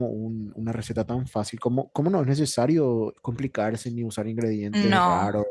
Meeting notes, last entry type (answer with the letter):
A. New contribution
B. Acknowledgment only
B